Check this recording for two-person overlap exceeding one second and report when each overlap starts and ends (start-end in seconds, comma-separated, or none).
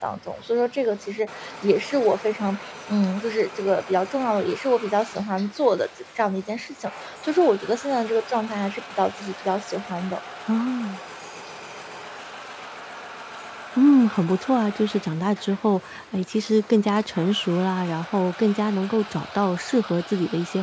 none